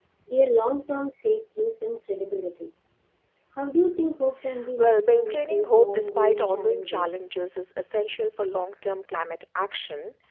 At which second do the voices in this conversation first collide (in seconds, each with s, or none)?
4.8 s